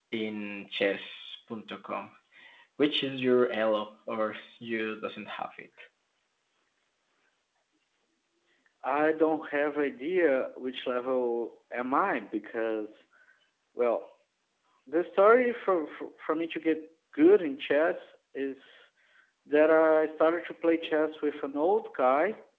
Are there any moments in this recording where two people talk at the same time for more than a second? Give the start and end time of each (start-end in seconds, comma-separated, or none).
none